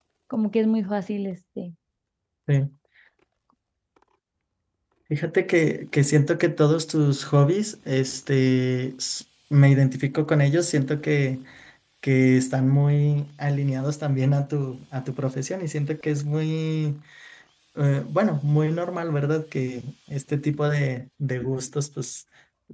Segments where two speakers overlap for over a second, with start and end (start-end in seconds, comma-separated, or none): none